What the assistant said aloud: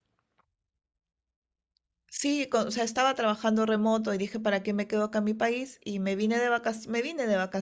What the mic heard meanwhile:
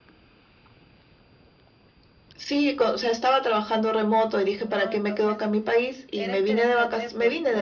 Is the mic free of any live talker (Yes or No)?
No